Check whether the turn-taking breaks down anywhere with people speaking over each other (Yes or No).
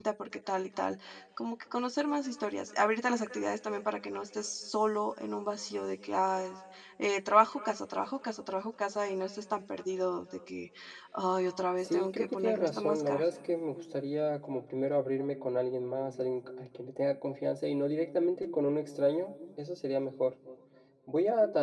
Yes